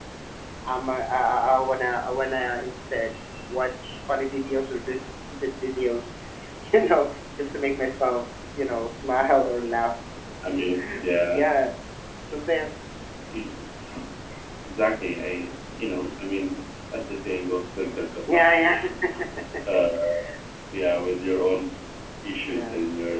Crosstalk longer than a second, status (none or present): none